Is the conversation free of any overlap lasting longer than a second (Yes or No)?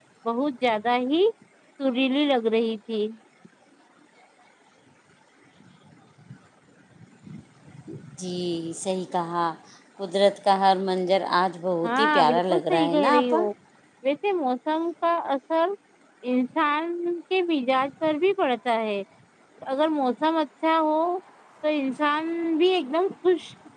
No